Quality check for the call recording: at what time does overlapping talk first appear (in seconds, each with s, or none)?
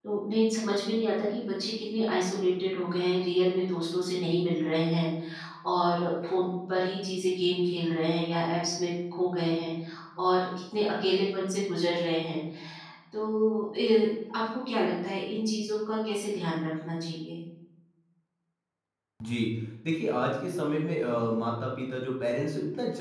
none